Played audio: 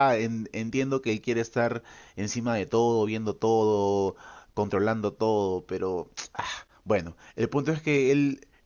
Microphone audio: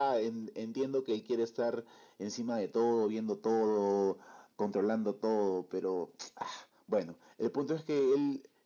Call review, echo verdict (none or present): present